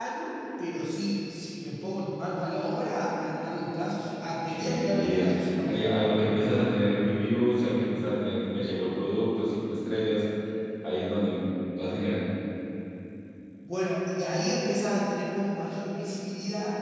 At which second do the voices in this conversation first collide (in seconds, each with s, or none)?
4.5 s